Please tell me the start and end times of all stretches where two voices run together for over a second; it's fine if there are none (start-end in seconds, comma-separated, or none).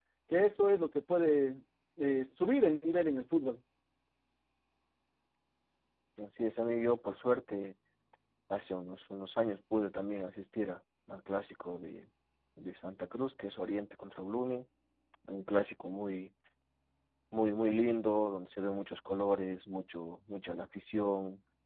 none